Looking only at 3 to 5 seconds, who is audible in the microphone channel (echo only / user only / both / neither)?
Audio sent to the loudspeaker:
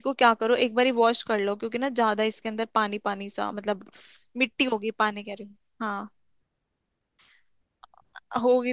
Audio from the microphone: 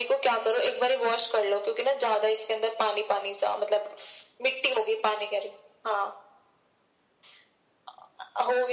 echo only